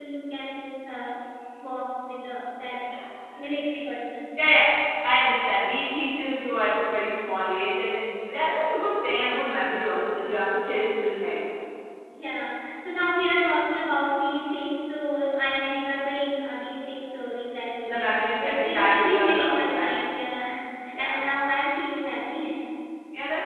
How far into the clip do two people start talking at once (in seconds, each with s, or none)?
17.9 s